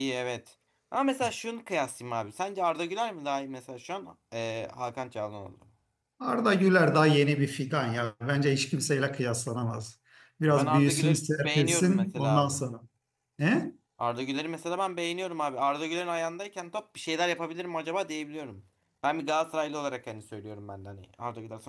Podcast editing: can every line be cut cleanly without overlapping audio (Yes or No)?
No